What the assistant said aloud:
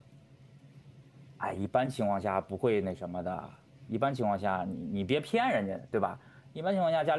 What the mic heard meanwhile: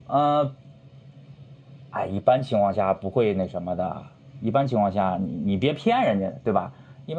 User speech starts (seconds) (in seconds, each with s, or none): none